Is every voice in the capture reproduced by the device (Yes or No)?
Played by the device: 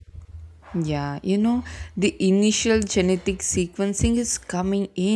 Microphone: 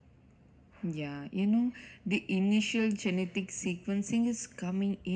Yes